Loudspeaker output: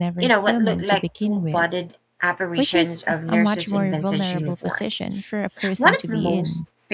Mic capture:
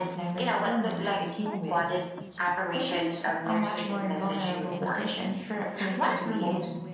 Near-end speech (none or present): present